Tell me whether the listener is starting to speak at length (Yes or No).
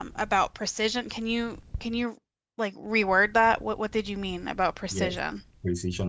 Yes